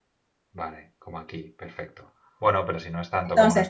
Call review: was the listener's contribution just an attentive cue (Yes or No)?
No